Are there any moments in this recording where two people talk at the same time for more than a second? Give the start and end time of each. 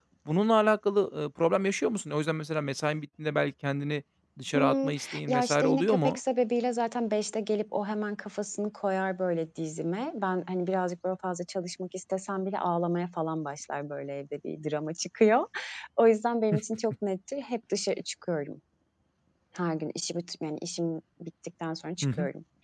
4.5-6.2

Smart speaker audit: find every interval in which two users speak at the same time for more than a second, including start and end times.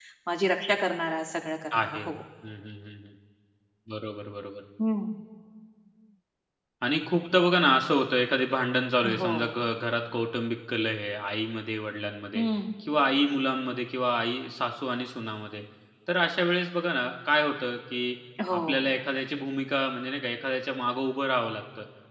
none

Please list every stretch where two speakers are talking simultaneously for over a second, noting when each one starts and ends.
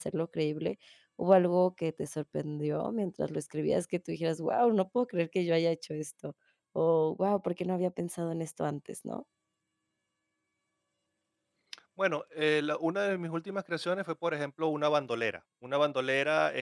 none

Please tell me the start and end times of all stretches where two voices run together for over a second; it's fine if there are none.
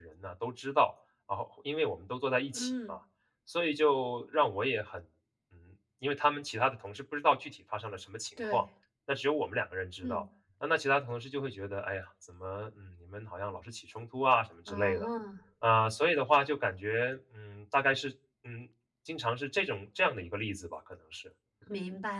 none

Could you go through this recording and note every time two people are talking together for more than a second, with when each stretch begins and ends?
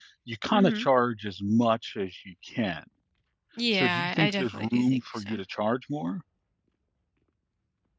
3.7-5.4

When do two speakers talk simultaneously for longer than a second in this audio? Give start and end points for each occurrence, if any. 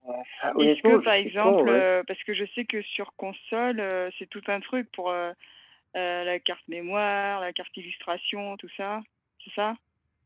0.6-1.9

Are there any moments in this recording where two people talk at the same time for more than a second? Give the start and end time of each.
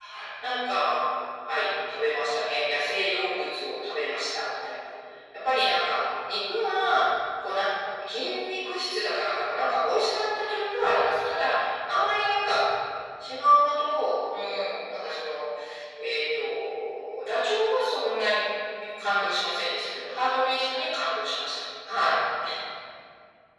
none

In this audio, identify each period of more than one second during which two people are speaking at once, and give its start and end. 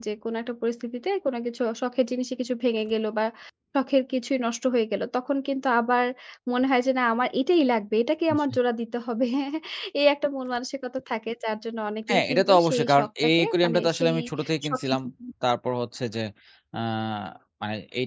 12.1-14.1

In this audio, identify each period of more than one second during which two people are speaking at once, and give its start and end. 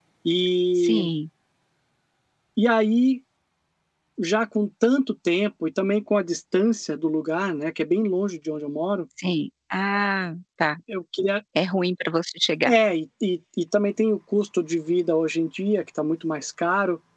none

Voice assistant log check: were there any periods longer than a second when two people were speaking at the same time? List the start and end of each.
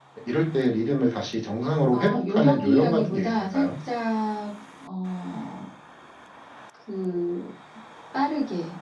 1.9-3.7

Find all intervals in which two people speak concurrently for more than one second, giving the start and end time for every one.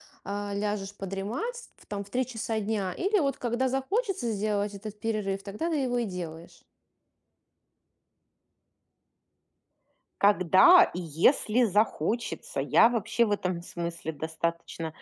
none

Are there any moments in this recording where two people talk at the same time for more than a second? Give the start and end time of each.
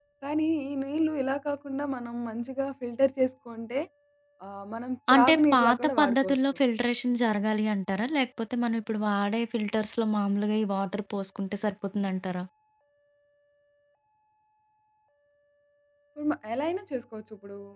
5.1-6.4

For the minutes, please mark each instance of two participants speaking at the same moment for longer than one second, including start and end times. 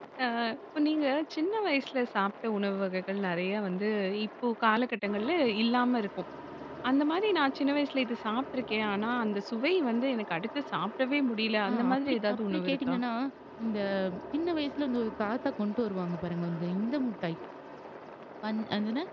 11.7-13.0

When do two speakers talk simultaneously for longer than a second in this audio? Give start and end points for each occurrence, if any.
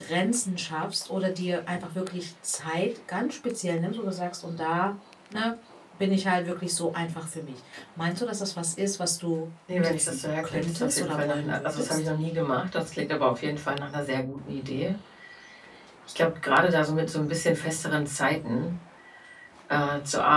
9.7-12.0

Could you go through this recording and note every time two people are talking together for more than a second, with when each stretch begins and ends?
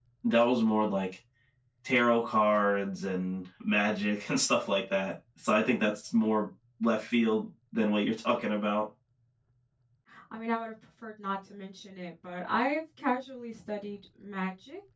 none

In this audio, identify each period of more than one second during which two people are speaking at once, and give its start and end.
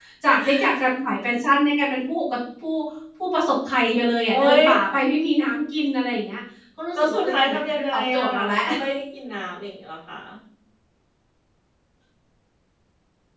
6.9-8.6

